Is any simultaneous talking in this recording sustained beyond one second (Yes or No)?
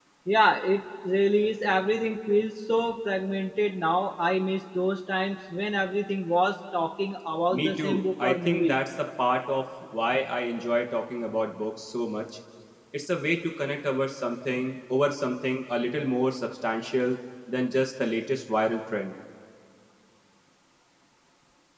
Yes